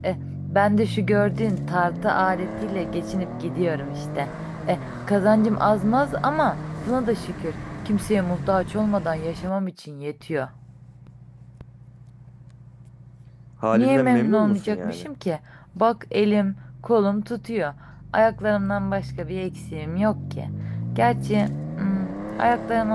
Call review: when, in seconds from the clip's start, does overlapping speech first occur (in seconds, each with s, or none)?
13.7 s